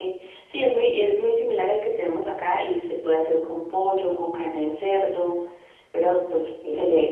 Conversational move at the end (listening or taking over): listening